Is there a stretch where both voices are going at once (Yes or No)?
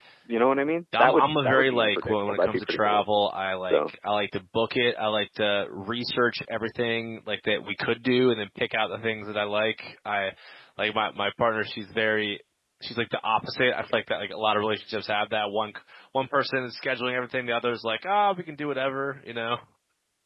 Yes